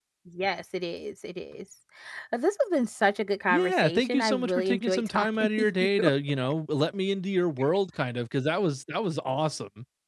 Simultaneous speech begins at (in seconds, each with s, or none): 3.5 s